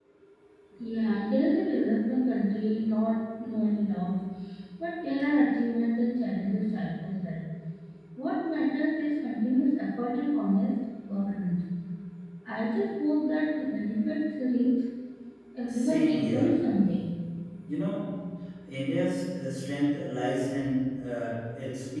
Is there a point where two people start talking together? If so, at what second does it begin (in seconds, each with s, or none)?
15.7 s